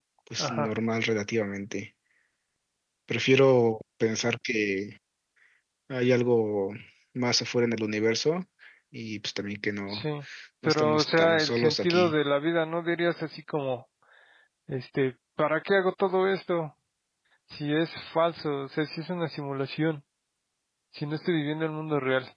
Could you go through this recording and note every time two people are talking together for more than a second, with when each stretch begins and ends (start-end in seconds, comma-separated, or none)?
10.7-12.1